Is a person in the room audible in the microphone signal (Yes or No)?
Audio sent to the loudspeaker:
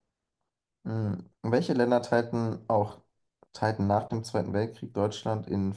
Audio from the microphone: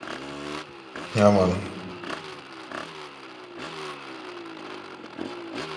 Yes